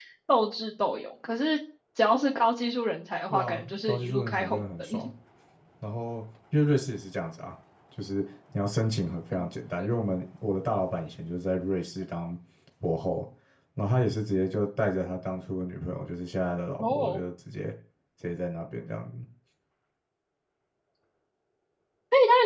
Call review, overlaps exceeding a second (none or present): present